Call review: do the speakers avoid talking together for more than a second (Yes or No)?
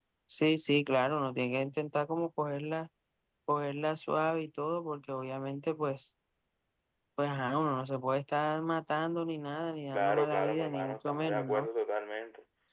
No